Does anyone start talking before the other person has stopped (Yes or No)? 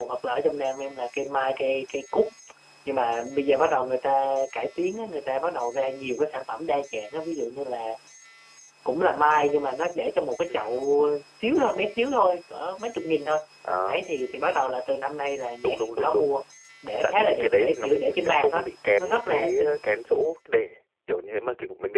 Yes